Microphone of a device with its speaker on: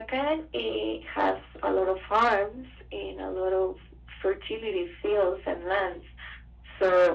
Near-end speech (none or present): none